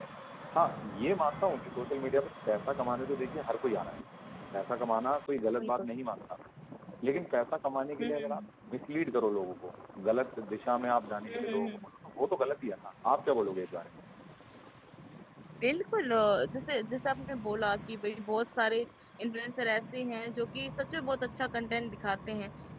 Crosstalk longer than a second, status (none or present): none